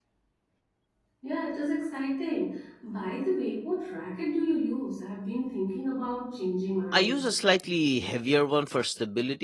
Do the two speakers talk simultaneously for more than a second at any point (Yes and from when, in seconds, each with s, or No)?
No